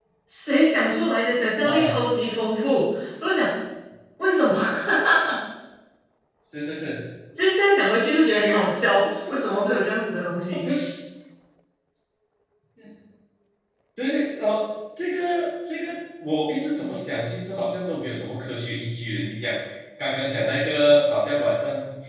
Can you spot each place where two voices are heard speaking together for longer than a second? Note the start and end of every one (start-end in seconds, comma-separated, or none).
none